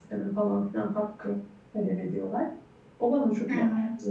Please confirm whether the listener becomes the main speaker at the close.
No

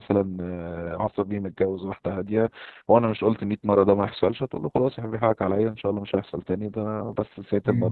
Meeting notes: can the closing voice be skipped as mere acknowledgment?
Yes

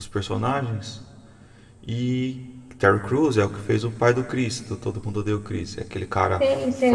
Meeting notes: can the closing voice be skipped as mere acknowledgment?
No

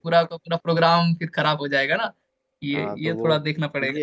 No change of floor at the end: No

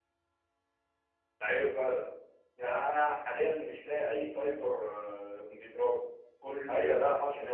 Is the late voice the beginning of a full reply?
Yes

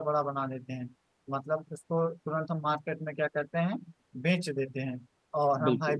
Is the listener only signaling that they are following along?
Yes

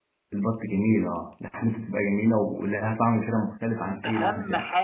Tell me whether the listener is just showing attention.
No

